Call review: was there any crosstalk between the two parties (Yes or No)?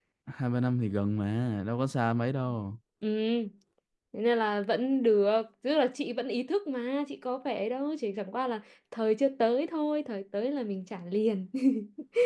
No